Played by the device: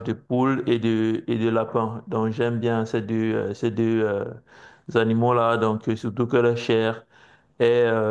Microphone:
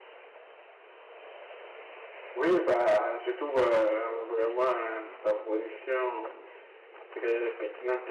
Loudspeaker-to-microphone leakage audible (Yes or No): No